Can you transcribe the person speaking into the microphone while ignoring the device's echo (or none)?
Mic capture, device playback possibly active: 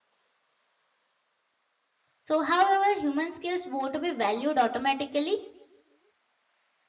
So, however, human skills won't be valued automatically.